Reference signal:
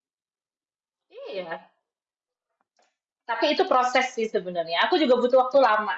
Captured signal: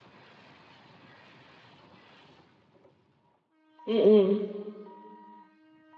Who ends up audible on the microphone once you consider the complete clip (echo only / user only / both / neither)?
user only